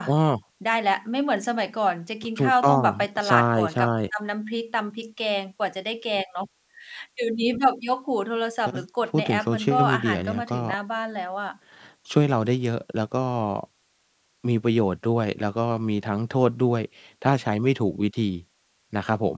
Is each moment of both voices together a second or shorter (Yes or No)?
No